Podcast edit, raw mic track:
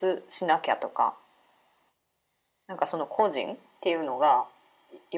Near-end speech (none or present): none